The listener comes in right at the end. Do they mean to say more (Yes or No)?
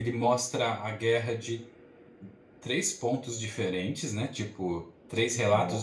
No